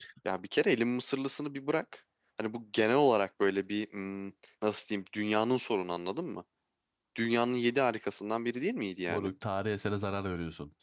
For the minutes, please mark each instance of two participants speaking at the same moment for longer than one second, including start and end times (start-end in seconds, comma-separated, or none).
none